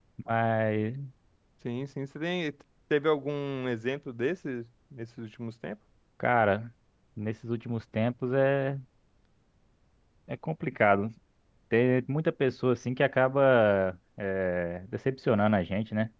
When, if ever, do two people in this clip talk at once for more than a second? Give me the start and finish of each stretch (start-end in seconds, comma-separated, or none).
none